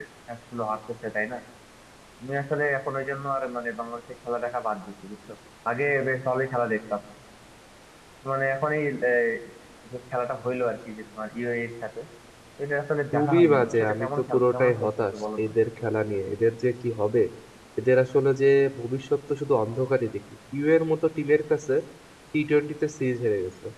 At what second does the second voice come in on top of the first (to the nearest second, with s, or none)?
13 s